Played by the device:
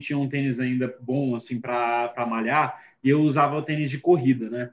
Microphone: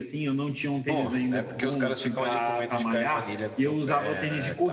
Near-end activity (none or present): present